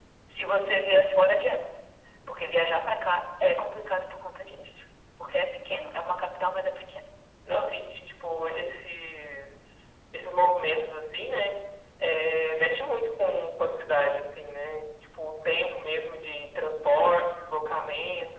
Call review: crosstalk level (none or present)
none